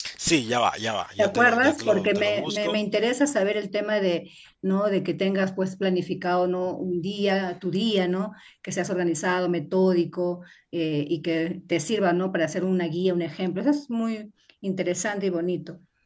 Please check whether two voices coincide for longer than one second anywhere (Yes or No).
Yes